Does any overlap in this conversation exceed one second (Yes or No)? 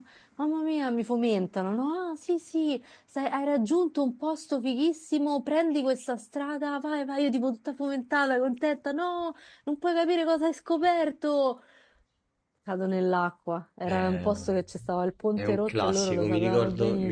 Yes